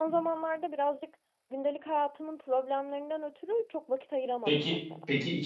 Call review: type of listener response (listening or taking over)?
taking over